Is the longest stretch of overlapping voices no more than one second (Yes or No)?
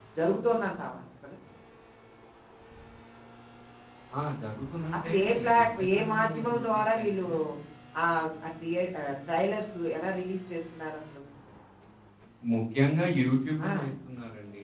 No